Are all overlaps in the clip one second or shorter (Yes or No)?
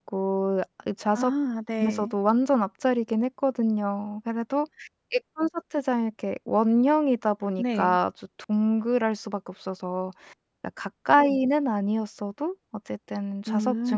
Yes